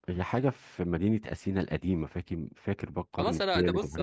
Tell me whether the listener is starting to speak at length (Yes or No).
Yes